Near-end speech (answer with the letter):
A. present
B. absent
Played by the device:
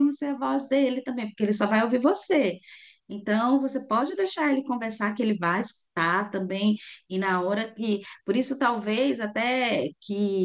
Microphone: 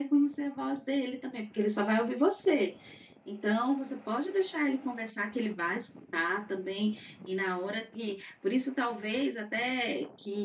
B